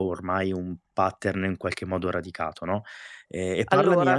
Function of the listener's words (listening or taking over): listening